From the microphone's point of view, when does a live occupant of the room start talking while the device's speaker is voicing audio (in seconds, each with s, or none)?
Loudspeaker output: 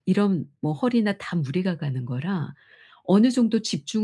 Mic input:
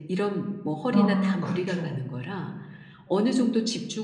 0.9 s